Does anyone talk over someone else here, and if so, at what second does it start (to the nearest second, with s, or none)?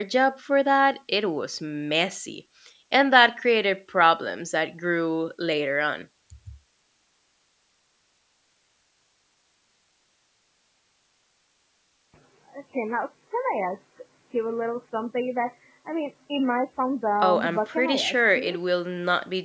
17 s